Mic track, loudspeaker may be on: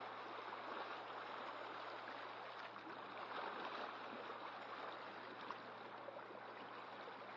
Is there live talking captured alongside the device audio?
No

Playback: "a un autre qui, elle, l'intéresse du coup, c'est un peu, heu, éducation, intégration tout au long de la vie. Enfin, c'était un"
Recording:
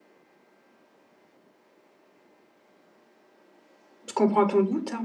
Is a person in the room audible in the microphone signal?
Yes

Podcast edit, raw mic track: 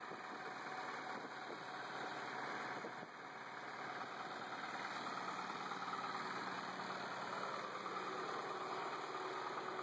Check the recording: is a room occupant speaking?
No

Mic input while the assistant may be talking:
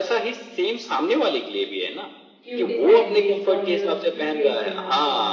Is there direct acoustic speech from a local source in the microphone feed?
Yes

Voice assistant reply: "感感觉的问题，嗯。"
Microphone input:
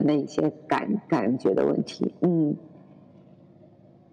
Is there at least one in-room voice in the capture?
No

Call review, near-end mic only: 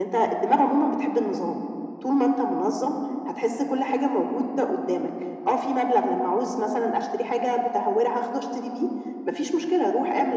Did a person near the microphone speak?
No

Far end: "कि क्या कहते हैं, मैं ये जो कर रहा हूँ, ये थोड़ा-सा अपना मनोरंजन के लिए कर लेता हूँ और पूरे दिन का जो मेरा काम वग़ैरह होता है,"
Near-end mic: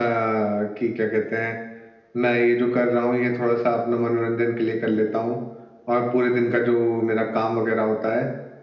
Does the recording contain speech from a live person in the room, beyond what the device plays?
No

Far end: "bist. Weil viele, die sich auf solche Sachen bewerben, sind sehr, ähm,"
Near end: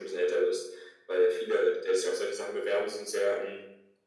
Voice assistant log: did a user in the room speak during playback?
No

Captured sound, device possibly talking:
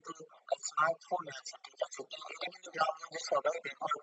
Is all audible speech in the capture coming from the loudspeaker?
Yes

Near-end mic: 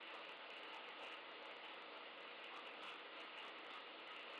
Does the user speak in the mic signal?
No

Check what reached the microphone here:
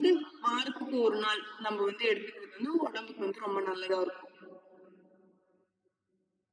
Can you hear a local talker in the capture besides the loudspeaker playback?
No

